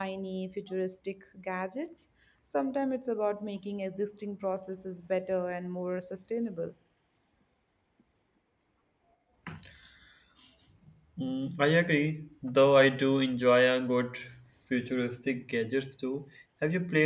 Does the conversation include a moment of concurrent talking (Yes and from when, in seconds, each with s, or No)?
No